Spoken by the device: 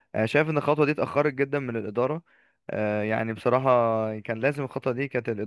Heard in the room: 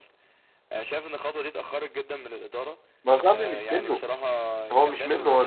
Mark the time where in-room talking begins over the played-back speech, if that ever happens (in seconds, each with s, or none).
3.0 s